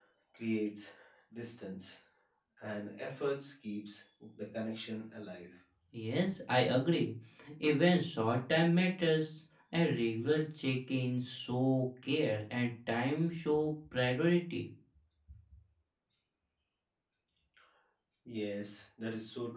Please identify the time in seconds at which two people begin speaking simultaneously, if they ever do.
none

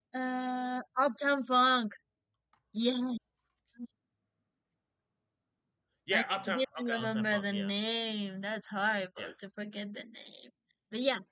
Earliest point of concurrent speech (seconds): 6.1 s

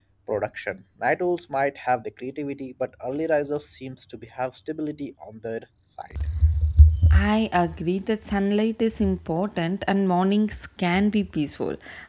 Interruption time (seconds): none

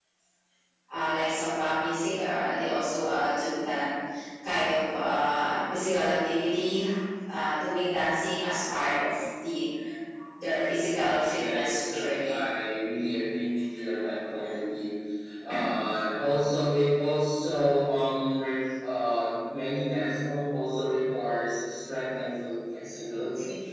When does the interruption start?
10.9 s

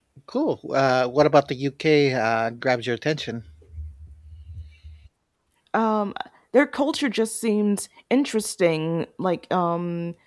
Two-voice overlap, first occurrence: none

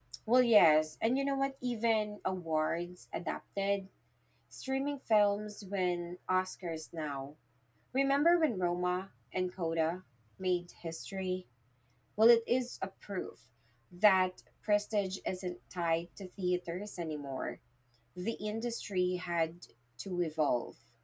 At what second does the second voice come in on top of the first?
none

